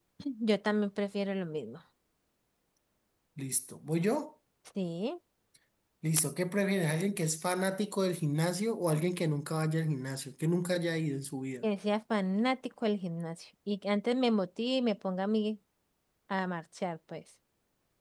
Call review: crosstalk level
none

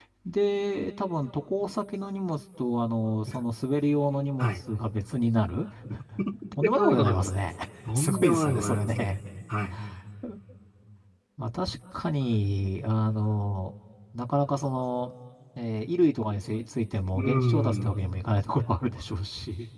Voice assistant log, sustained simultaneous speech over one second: present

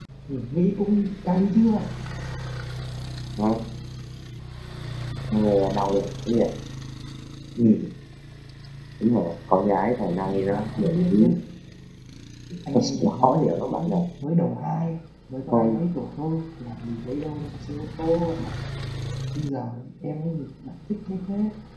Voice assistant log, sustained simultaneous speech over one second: present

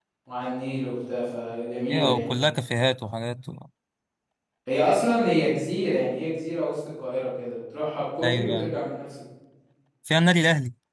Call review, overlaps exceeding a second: none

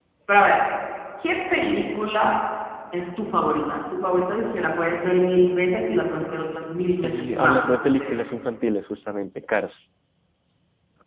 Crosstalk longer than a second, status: present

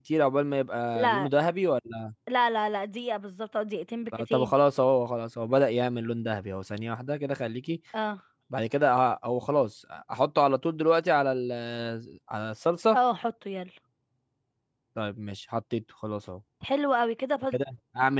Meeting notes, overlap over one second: none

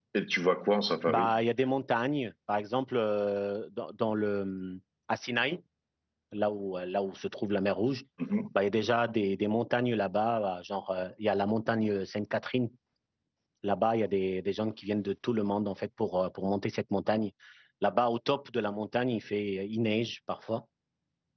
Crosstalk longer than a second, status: none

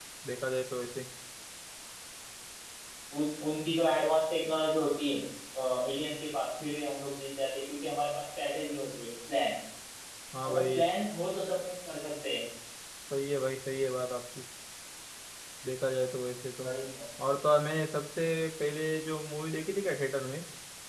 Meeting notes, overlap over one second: none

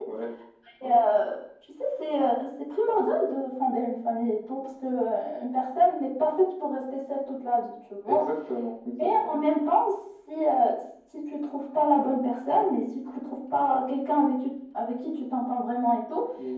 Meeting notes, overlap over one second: none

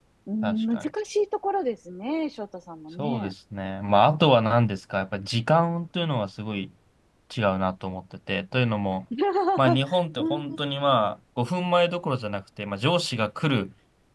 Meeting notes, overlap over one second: none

